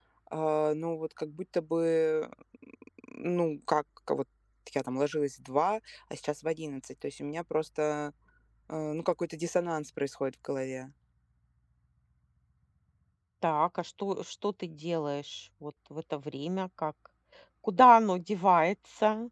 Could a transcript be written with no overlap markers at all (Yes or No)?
Yes